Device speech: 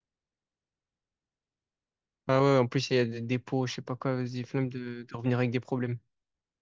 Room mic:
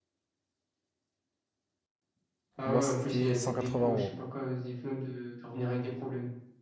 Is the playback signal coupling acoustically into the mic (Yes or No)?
Yes